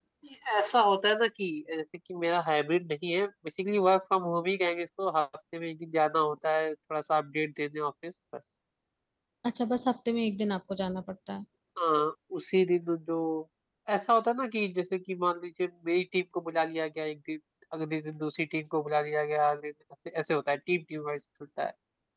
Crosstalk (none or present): none